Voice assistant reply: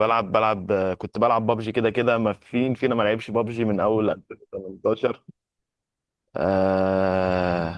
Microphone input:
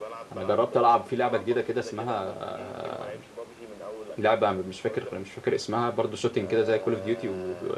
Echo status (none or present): present